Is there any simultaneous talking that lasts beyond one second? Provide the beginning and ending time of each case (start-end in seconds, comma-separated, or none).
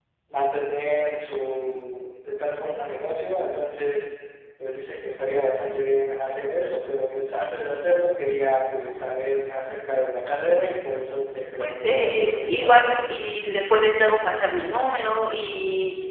11.6-12.8